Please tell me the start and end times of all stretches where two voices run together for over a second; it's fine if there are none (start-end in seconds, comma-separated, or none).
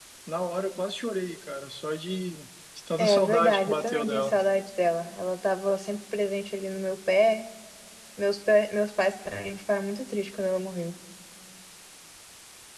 3.0-4.3